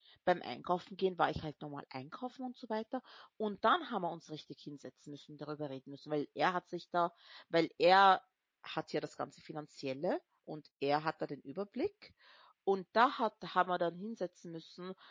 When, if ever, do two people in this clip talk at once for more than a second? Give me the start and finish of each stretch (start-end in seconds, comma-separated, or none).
none